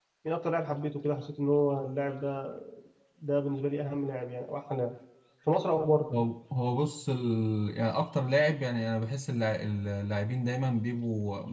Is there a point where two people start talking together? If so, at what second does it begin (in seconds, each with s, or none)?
none